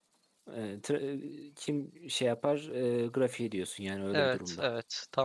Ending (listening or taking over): taking over